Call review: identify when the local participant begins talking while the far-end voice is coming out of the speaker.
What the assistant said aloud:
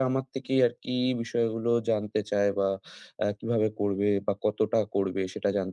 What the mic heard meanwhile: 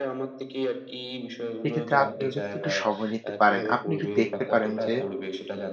2 s

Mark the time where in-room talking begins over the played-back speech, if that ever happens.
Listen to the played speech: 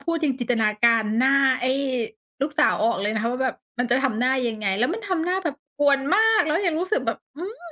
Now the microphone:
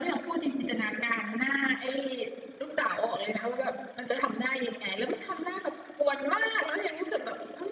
none

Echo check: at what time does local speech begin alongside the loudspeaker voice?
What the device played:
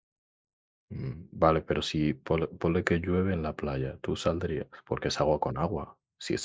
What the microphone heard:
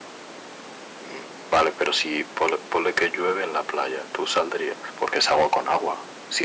none

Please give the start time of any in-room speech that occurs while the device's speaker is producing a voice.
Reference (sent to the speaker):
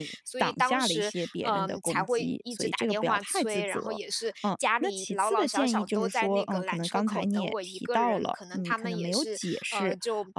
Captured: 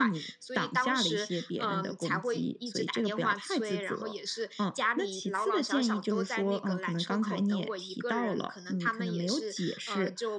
none

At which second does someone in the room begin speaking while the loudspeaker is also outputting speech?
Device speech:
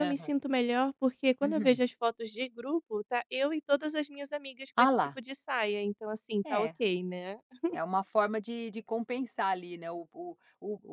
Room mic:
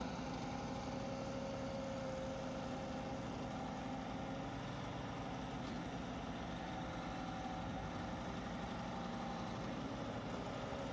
none

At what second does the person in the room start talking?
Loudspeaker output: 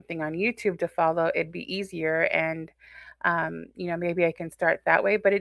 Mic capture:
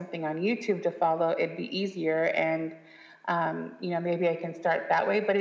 none

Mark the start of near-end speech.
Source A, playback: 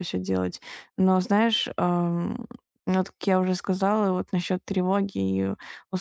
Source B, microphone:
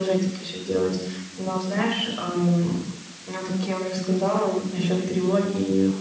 none

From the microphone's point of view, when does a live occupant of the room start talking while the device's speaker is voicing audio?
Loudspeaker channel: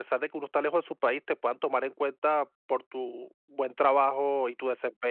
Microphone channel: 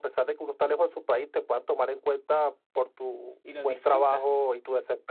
3 s

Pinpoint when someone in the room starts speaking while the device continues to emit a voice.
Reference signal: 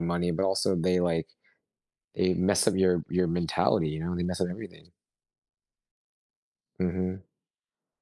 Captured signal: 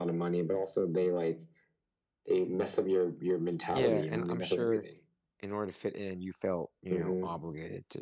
4 s

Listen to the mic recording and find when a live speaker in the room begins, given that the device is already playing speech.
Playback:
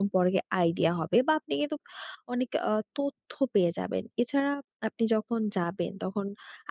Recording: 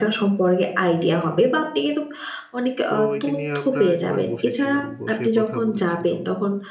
3 s

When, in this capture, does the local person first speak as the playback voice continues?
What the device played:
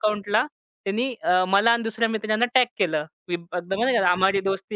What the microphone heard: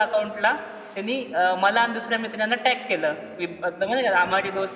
none

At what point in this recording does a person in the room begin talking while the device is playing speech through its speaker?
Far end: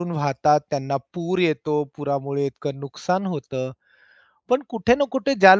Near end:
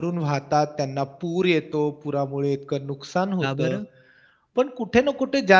3 s

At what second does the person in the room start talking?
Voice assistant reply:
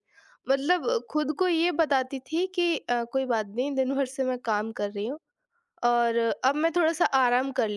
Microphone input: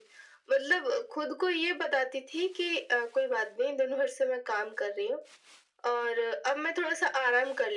none

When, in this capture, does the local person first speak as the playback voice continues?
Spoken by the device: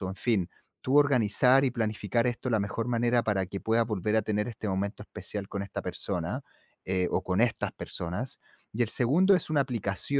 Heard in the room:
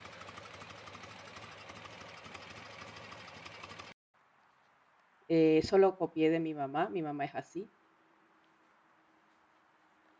5 s

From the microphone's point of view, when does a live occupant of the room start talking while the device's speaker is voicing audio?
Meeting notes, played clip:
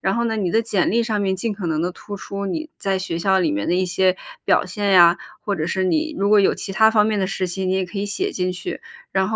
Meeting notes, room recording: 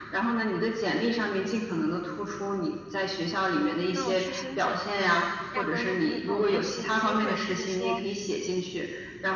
4 s

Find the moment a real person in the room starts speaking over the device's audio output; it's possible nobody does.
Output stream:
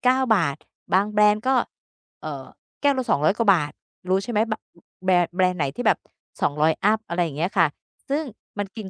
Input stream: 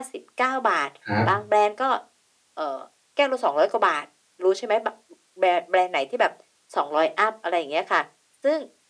1 s

